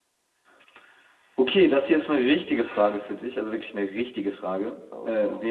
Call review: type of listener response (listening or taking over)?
listening